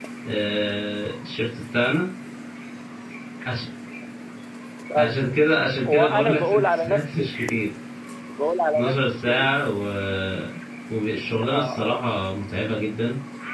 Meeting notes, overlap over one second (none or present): present